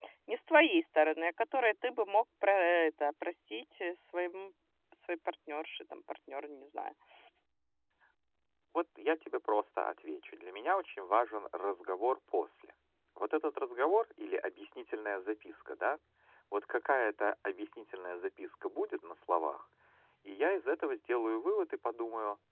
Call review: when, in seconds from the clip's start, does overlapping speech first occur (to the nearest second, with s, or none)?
none